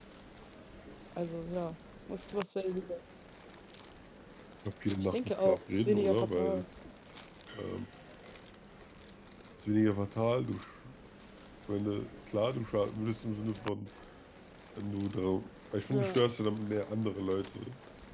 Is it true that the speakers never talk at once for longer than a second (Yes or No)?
No